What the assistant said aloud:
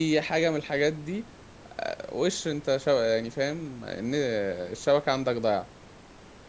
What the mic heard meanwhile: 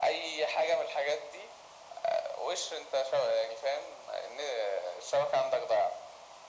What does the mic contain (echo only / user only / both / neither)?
echo only